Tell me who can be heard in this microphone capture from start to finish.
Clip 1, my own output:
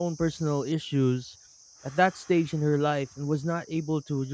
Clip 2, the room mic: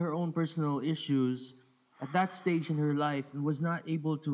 echo only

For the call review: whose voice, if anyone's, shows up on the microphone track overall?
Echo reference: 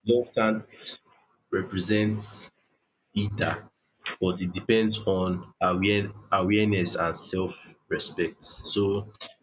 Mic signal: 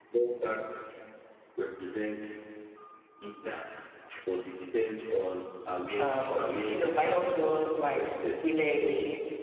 both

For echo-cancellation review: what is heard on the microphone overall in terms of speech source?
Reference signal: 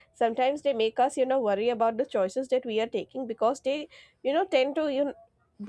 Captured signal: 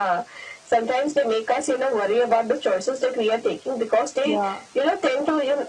both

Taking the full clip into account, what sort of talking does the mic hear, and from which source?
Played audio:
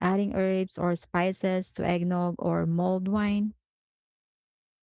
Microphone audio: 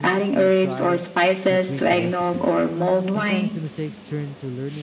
both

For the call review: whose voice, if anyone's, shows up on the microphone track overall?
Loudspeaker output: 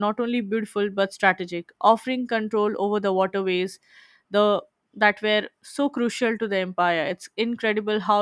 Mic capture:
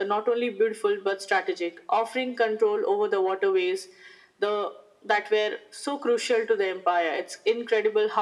echo only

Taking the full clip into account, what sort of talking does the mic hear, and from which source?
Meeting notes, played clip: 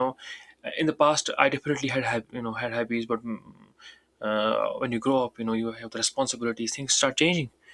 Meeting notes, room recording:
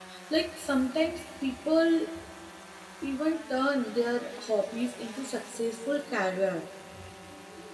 user only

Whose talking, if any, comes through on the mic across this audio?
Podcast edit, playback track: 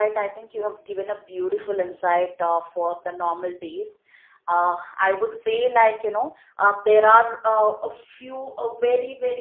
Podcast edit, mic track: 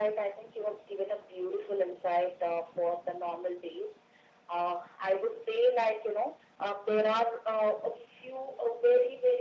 echo only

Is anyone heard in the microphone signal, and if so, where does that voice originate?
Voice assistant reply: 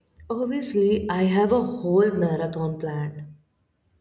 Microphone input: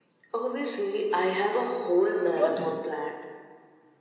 both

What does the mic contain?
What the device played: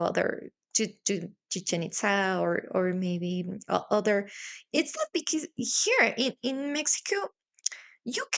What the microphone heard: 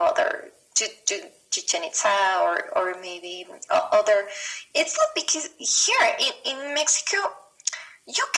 echo only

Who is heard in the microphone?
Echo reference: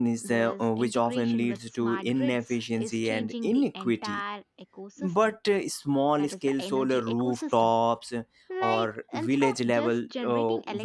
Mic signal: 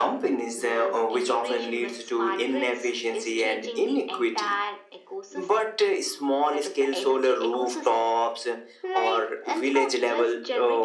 echo only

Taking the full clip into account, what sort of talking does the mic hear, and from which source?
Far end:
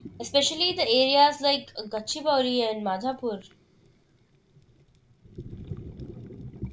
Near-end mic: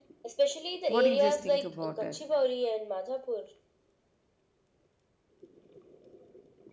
both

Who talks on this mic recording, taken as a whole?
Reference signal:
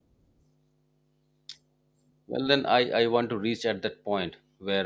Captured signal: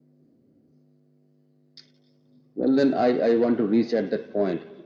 echo only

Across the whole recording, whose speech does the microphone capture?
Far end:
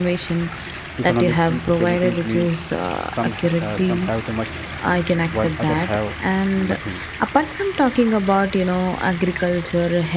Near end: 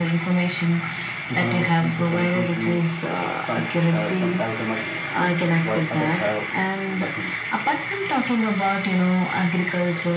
echo only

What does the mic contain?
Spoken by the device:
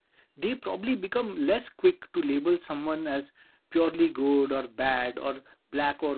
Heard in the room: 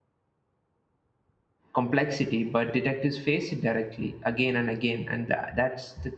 user only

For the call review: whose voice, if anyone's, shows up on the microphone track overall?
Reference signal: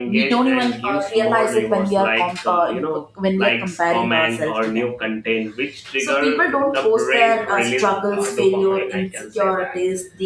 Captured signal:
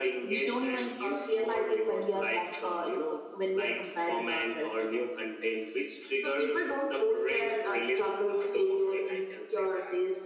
echo only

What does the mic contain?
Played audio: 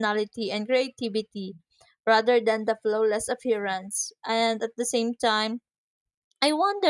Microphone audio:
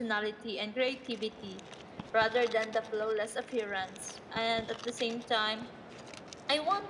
echo only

